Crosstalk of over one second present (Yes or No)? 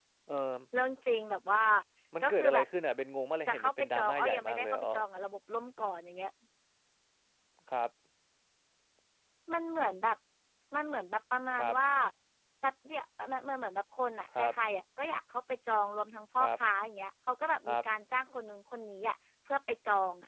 Yes